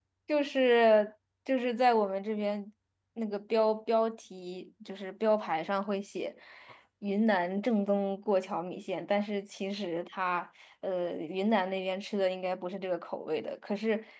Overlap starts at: none

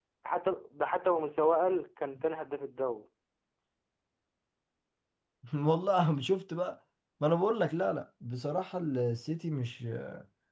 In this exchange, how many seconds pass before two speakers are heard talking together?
none

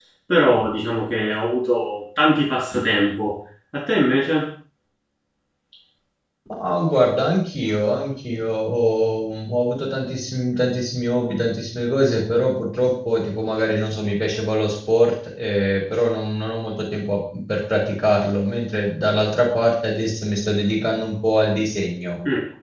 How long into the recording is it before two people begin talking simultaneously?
none

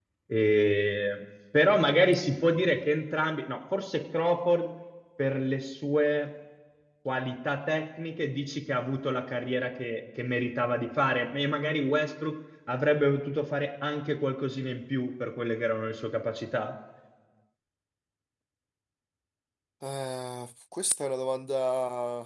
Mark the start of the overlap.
none

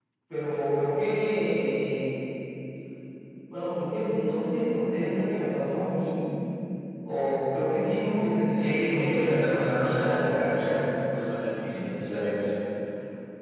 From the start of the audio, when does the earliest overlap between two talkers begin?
8.6 s

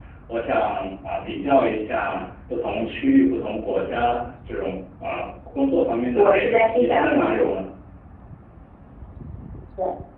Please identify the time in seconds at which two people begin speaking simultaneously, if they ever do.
6.1 s

